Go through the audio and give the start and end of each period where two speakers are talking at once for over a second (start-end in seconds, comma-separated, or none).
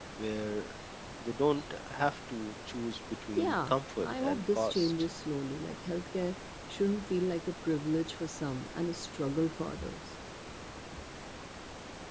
3.4-4.9